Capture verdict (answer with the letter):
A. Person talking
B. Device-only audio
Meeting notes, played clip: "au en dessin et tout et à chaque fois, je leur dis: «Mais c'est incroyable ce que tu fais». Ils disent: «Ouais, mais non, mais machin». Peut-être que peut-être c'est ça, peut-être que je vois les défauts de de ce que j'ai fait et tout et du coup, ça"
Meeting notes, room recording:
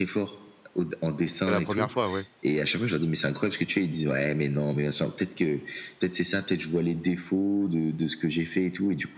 A